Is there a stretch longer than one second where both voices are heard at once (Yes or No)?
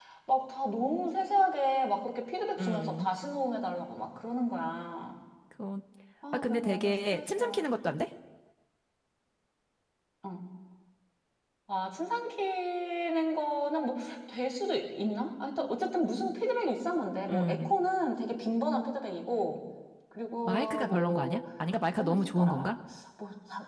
Yes